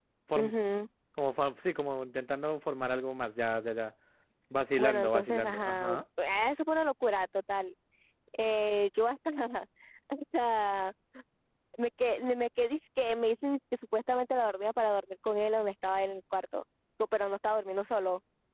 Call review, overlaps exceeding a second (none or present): present